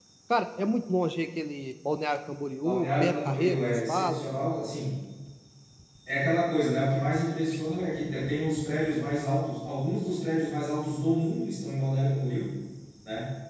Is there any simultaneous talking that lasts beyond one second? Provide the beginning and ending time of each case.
2.6-4.3

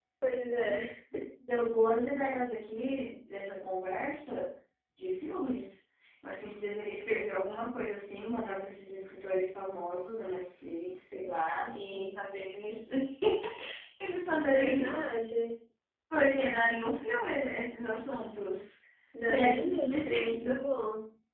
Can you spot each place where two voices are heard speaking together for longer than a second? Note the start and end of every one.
19.2-20.4

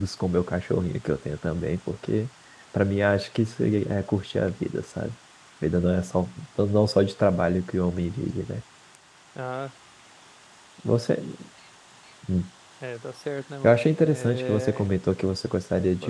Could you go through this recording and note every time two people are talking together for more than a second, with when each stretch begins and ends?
13.6-14.9

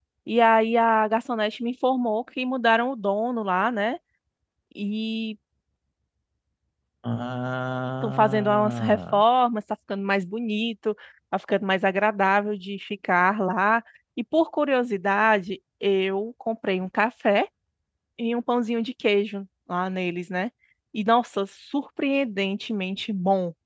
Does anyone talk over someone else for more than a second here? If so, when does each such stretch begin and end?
8.0-9.2

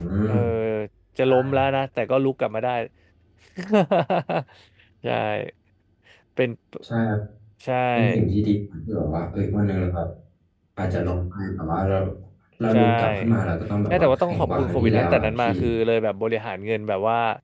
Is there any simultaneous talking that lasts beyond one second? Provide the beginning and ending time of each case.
13.9-15.5

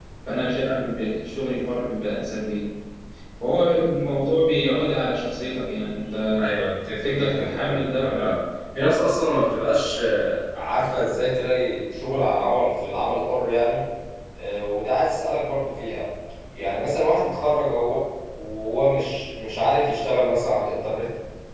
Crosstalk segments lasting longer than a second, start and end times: 7.0-8.3

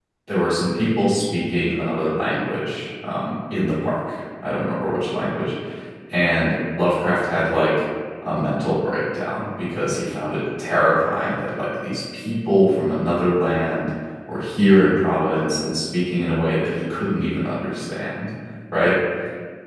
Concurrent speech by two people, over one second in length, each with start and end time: none

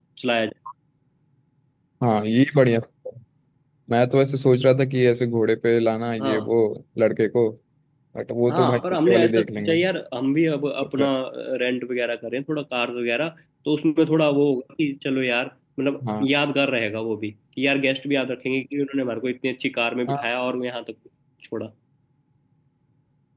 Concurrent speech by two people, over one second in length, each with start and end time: 8.5-9.7

